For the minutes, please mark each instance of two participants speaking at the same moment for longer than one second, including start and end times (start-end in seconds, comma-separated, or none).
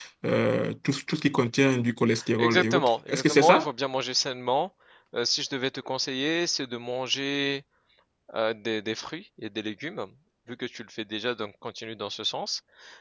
2.4-3.7